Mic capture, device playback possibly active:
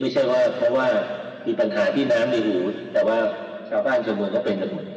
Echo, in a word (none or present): present